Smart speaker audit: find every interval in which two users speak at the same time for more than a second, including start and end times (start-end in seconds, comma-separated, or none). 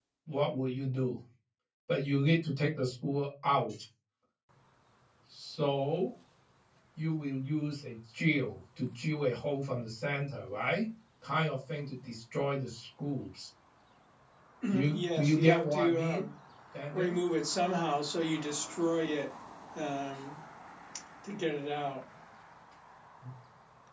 14.9-16.3